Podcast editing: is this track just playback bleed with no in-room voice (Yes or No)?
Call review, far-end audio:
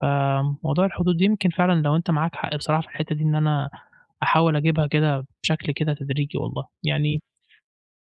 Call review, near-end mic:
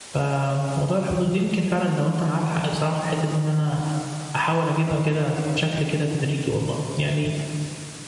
Yes